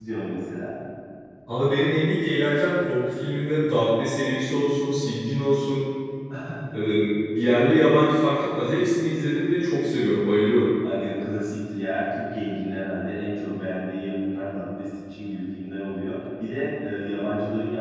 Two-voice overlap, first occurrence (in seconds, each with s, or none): none